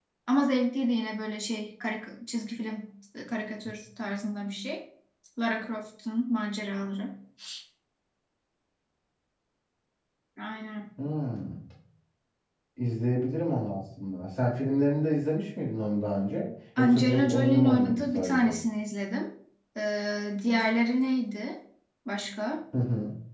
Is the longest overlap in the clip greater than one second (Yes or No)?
Yes